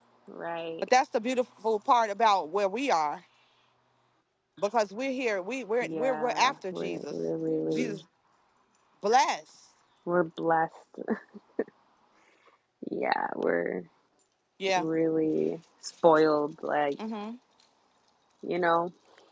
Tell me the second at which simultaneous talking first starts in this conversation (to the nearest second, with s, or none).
6 s